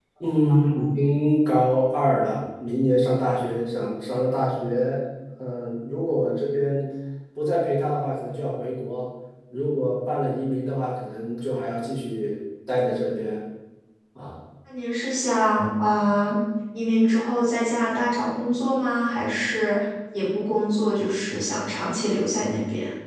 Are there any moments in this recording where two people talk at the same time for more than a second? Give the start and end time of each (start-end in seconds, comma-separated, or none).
none